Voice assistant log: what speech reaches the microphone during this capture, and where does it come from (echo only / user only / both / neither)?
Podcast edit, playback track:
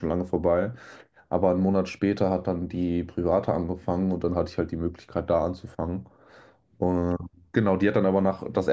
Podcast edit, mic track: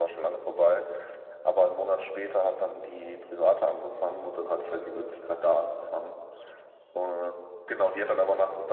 echo only